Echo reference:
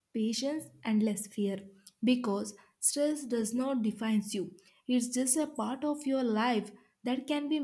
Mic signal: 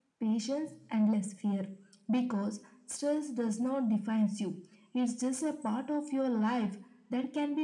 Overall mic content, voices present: echo only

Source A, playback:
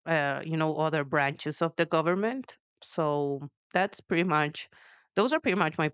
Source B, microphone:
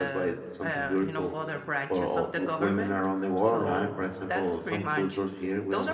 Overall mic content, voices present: both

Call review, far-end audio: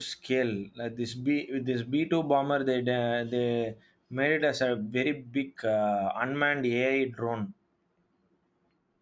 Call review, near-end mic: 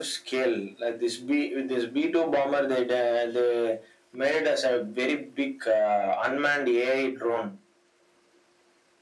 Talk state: echo only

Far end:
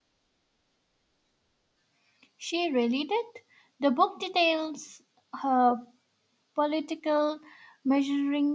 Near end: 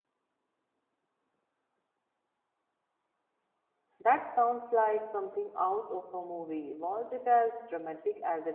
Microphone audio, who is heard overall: user only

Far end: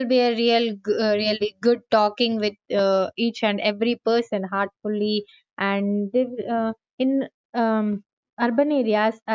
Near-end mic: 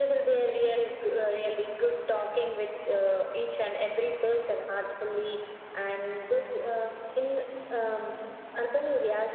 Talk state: echo only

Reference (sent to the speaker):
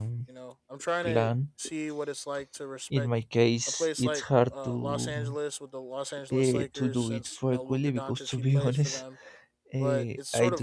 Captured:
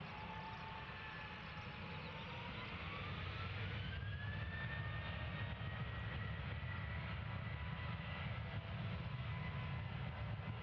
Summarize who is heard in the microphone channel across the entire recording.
neither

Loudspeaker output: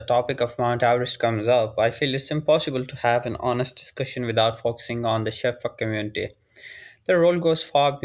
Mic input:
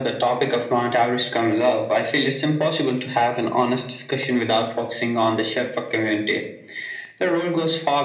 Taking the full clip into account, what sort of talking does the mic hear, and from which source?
echo only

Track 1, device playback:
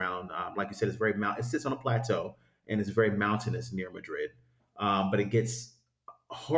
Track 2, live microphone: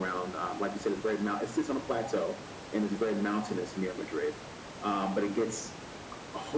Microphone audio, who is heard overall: echo only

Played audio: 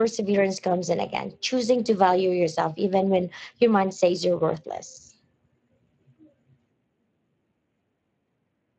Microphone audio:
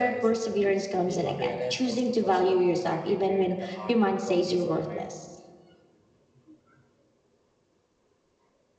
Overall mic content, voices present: both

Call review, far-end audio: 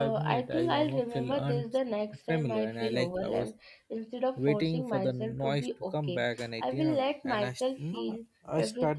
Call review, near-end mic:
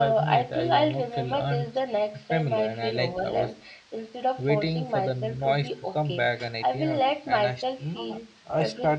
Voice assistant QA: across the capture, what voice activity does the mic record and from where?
echo only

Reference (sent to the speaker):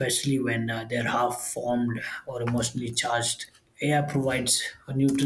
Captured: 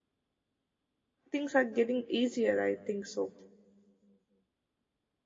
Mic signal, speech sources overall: user only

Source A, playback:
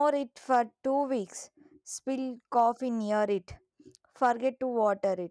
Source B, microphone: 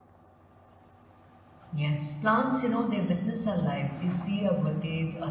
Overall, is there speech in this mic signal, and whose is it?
user only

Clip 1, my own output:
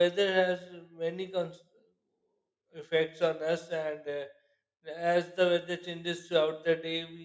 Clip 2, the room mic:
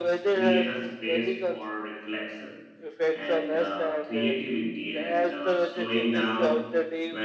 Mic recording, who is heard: both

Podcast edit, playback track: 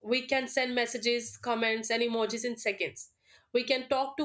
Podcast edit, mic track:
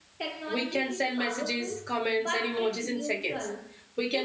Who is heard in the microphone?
both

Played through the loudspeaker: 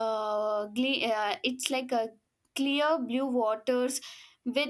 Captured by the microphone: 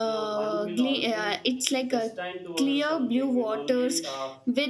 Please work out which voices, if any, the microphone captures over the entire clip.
both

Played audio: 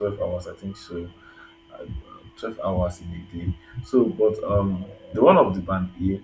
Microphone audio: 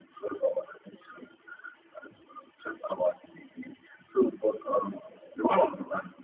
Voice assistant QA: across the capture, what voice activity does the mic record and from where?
echo only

